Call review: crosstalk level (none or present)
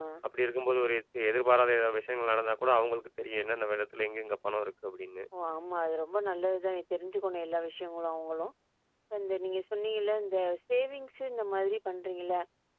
none